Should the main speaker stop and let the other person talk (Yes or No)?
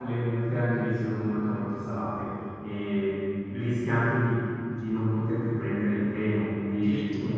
Yes